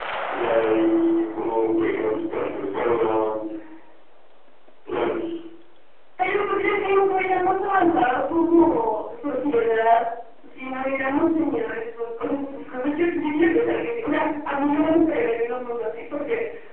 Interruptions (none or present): none